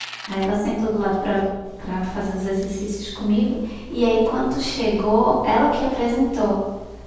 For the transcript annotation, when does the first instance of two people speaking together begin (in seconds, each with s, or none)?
none